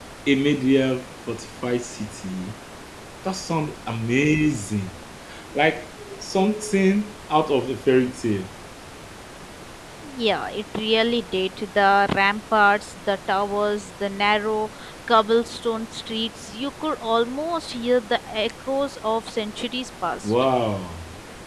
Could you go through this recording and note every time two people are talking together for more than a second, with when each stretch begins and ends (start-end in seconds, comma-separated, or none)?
none